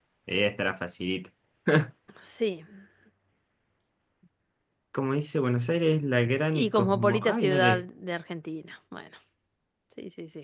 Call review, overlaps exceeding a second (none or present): present